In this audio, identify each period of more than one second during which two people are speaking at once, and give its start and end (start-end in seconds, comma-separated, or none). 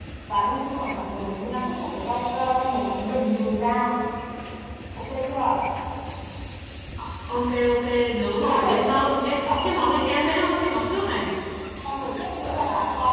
none